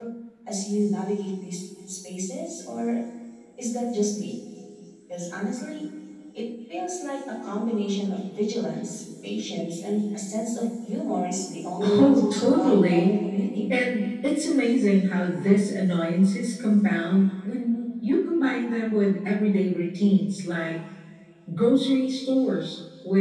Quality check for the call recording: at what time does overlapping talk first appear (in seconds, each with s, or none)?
11.8 s